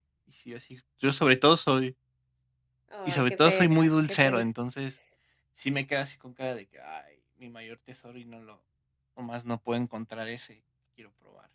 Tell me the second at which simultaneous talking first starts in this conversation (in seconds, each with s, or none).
3.1 s